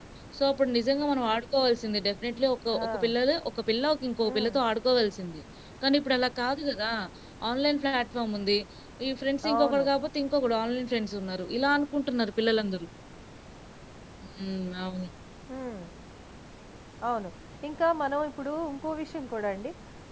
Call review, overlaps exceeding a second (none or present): none